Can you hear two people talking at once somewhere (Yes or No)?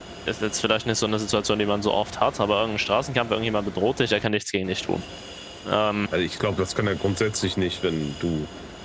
No